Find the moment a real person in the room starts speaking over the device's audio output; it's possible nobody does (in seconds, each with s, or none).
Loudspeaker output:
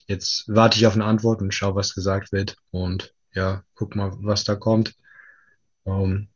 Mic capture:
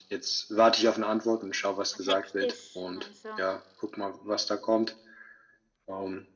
1.9 s